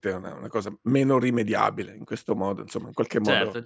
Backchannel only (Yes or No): No